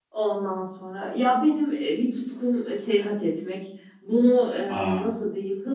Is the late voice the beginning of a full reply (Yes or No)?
No